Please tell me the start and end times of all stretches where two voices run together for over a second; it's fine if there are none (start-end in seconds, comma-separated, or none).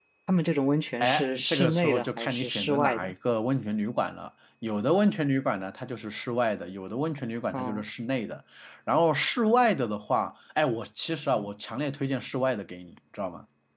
1.0-3.1